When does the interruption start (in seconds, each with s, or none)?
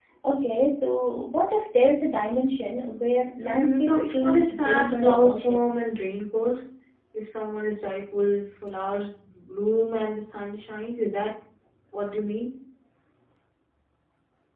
3.4 s